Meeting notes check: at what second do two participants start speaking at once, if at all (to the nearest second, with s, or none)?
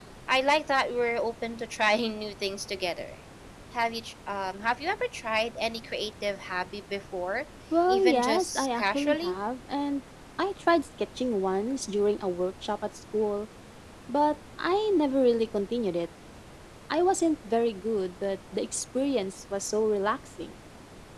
8 s